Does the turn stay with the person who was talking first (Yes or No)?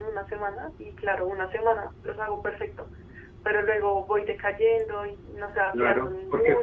No